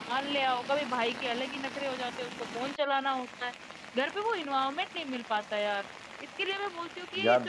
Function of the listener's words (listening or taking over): listening